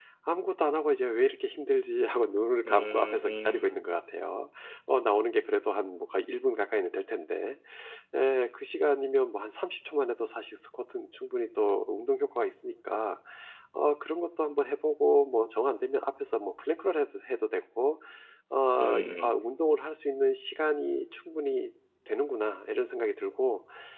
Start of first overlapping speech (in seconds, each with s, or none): 2.6 s